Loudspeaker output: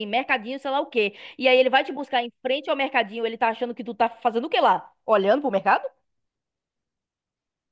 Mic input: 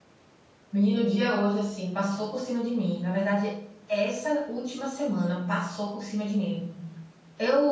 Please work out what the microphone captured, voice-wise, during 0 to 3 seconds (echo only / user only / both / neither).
user only